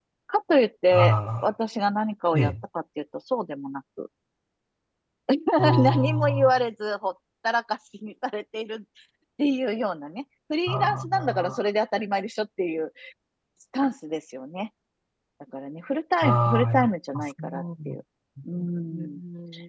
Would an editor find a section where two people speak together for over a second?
Yes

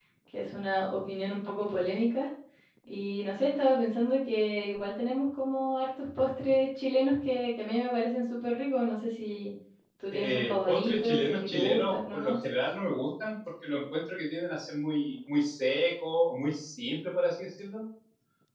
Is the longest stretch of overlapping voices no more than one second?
No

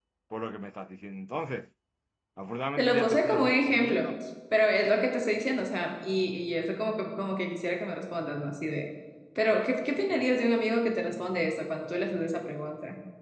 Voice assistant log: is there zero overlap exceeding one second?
No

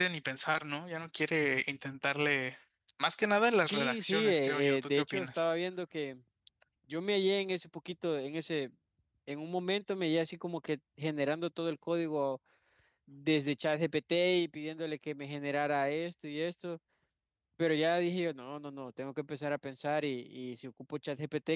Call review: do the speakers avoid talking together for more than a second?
No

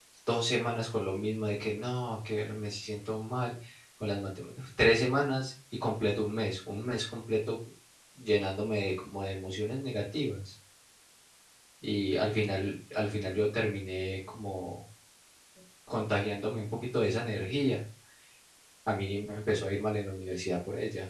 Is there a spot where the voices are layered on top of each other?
No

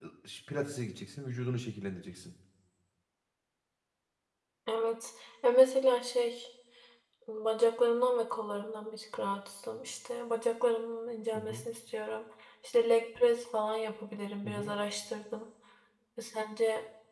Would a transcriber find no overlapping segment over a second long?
Yes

